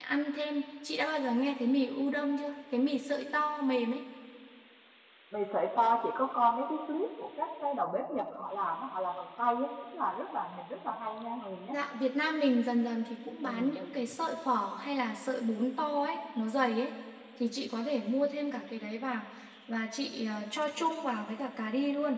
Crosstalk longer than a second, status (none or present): none